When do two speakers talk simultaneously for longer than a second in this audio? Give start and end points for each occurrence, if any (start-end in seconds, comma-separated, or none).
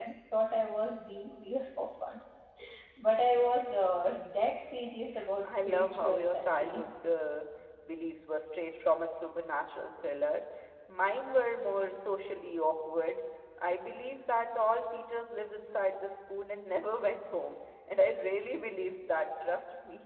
5.5-6.9